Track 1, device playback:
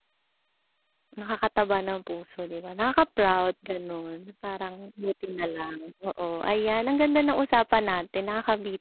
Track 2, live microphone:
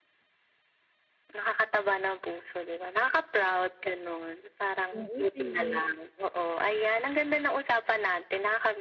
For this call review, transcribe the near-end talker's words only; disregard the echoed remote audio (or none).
Oo sige.